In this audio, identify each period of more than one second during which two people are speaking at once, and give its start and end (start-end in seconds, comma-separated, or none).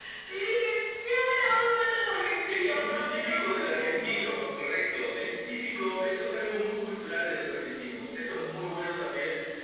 2.5-4.2